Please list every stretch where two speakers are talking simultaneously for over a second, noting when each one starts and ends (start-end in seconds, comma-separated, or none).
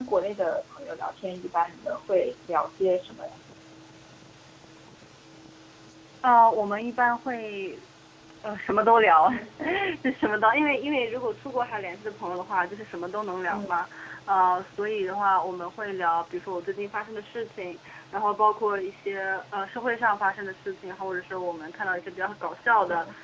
none